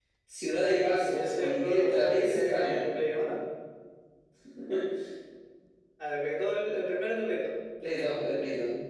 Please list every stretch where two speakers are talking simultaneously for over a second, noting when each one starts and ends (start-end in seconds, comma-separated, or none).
1.1-2.9